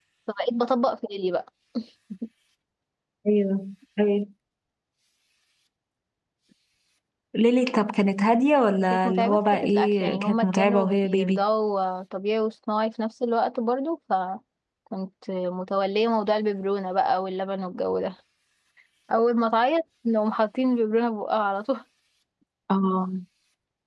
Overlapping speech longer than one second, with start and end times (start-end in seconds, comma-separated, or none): 8.9-11.4